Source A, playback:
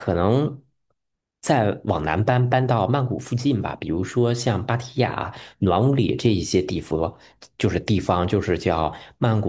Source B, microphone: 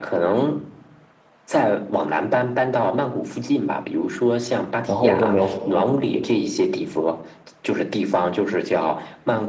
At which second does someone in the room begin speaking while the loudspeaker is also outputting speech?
5 s

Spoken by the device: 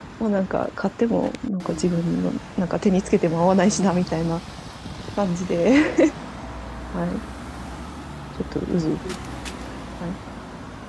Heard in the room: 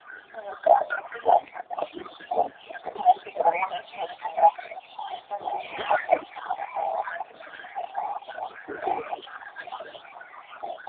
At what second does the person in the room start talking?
none

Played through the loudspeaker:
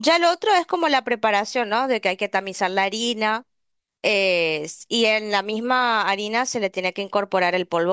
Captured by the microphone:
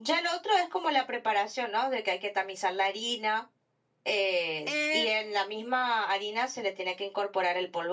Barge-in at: 5 s

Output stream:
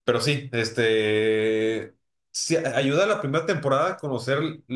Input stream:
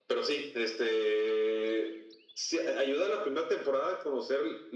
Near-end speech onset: none

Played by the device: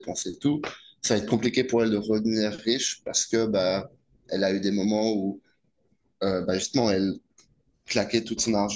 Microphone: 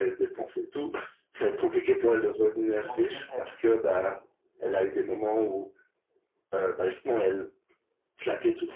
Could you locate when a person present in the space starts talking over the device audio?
3 s

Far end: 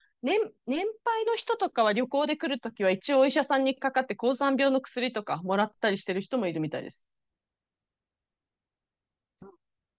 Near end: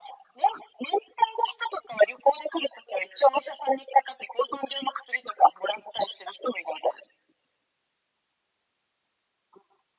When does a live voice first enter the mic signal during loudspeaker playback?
none

